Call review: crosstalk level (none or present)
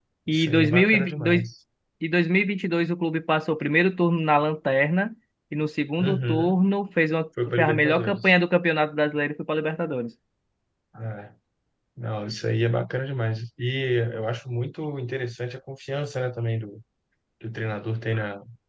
present